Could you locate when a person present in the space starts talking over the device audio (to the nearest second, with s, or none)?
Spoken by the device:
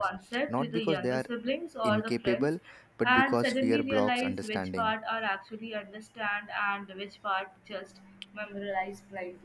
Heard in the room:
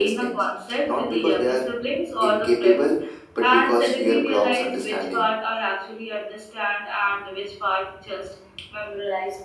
none